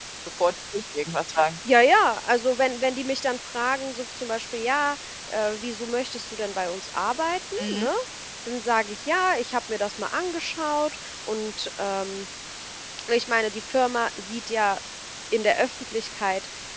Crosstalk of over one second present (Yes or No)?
No